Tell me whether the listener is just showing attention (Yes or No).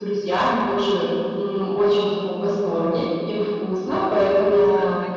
Yes